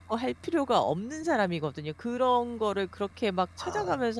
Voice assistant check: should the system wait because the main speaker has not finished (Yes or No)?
Yes